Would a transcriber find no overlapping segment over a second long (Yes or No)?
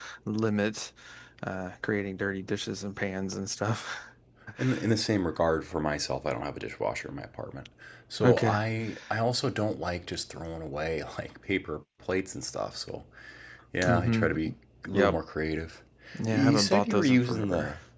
No